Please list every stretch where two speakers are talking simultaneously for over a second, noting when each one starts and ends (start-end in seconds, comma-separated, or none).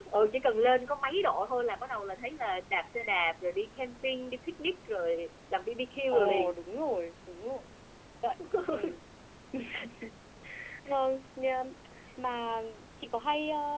none